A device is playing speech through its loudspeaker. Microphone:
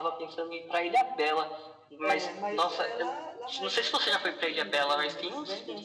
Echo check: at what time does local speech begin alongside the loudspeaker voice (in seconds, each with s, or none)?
2.0 s